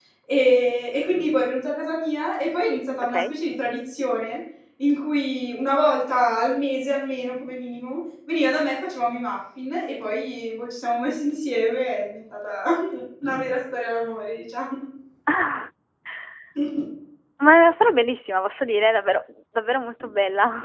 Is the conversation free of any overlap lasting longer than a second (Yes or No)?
Yes